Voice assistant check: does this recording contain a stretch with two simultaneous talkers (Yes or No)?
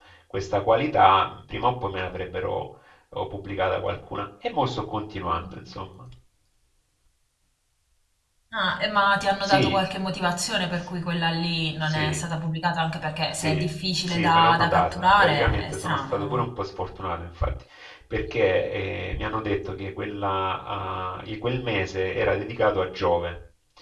Yes